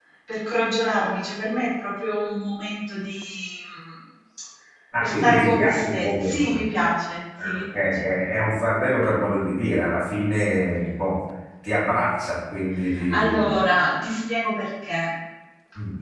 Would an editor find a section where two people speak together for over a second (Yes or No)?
Yes